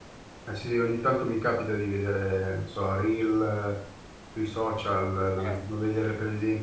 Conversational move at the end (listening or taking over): listening